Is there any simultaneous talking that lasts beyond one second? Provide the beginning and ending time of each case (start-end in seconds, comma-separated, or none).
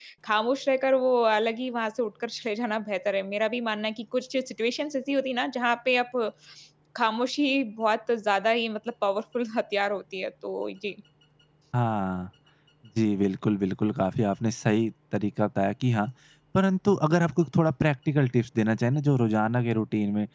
none